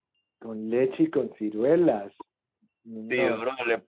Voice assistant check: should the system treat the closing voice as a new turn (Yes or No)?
Yes